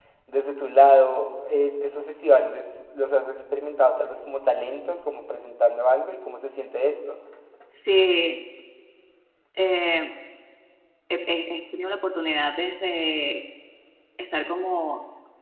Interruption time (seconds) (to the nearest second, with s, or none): none